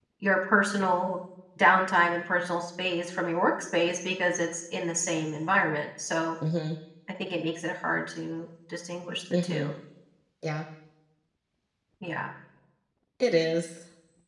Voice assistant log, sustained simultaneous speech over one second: none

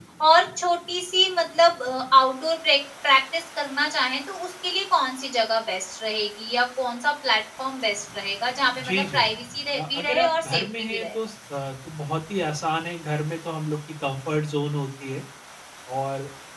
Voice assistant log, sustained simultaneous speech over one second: present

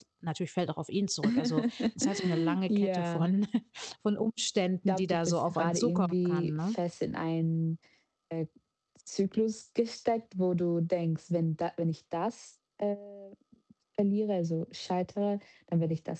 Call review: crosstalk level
present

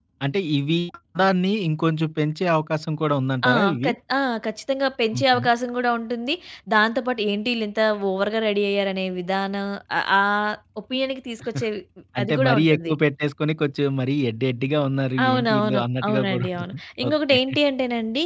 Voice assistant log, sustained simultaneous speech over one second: present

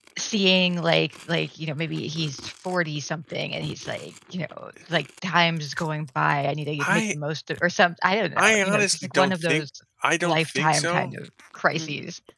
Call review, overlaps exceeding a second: present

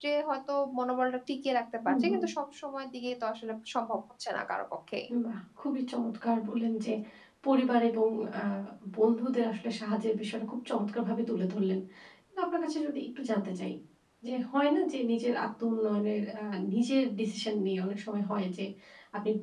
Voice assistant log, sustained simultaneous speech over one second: none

